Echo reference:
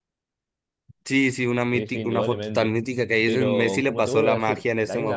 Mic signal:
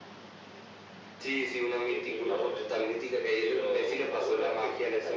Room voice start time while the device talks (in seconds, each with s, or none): none